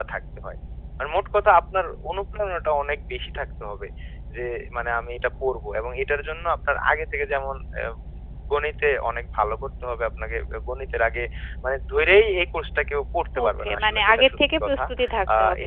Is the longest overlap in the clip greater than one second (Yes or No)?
Yes